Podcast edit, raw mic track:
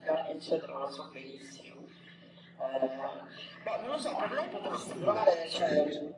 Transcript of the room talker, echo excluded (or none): Beh, certo.